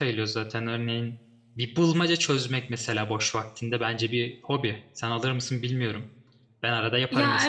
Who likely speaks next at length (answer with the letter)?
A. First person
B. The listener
B